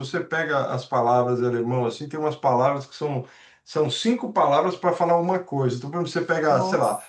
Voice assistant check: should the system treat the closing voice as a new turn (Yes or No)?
No